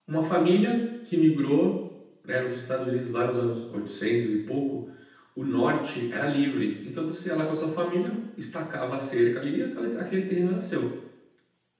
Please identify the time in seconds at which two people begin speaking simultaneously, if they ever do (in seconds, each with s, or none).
none